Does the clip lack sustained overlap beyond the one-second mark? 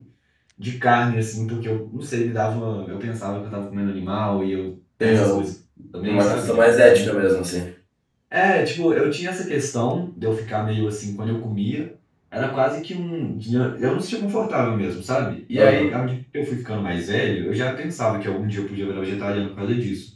No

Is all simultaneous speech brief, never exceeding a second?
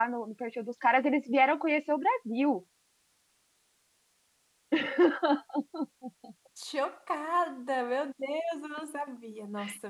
Yes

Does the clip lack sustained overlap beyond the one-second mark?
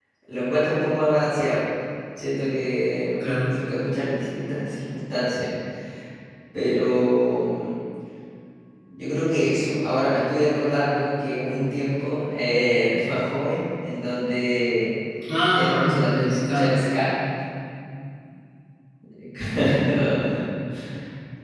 No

